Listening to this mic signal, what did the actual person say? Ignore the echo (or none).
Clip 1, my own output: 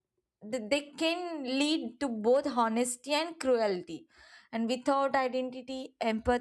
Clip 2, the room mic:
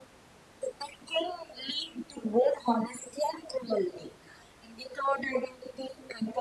none